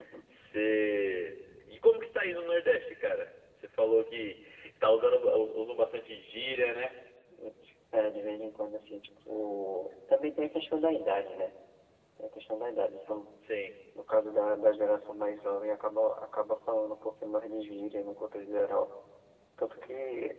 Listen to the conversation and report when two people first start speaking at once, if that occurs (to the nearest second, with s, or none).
none